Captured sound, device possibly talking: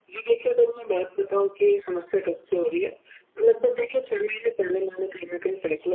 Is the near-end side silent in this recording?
Yes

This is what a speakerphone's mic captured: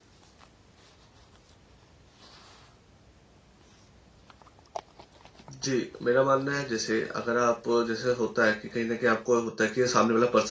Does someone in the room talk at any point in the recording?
Yes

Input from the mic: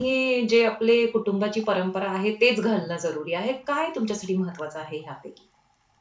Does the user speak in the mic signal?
Yes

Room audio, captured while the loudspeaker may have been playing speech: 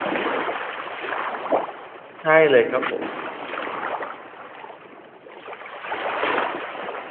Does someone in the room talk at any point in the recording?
Yes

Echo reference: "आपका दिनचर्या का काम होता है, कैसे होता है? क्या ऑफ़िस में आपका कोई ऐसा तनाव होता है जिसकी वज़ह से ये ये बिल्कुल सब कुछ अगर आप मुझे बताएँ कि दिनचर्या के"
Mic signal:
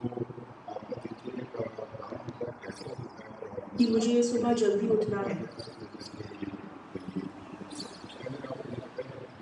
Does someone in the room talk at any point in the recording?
Yes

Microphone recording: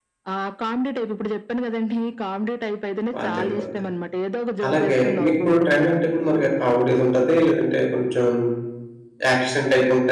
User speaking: Yes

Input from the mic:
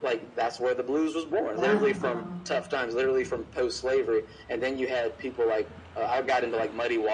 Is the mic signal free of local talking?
No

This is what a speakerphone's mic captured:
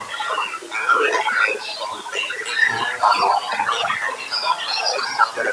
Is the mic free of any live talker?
Yes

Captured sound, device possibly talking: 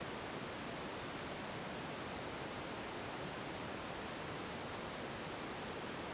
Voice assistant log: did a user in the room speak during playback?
No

